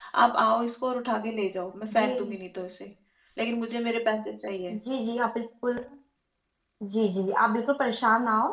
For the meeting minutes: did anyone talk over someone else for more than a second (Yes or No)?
No